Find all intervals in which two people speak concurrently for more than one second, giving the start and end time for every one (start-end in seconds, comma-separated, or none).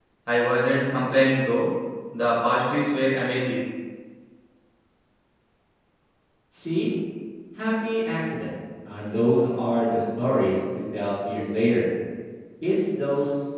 none